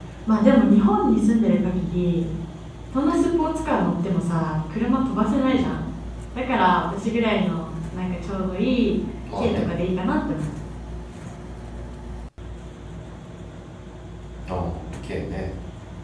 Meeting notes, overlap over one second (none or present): none